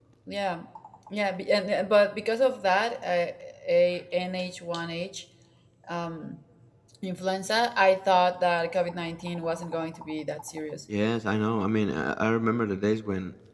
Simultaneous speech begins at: none

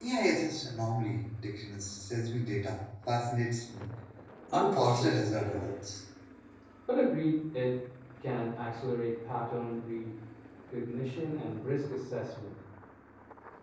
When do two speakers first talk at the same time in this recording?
4.5 s

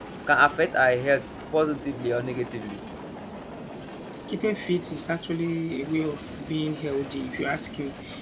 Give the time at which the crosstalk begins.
none

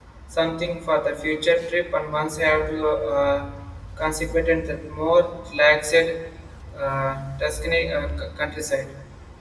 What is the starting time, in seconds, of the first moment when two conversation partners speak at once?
none

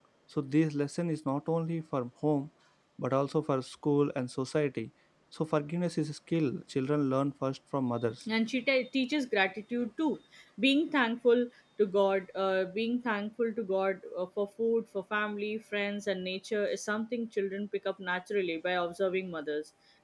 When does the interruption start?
none

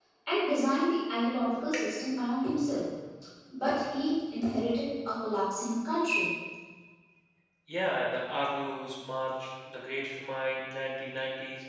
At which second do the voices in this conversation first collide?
none

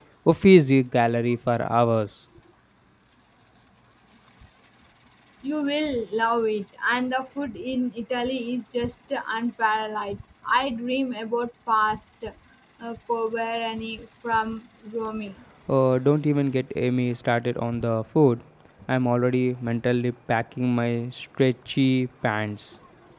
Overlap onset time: none

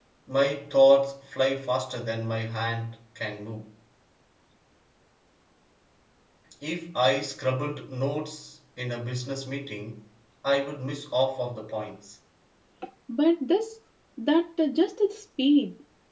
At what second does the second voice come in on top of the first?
none

